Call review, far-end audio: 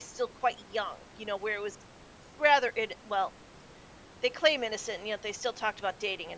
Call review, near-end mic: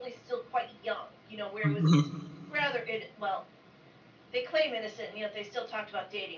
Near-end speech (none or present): present